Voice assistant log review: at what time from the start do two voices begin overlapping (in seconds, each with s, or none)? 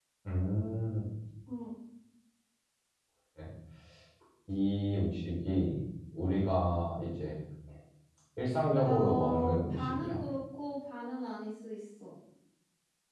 8.8 s